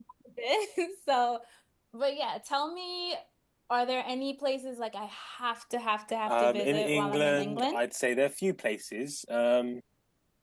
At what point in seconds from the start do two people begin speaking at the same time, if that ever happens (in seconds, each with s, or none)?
6.3 s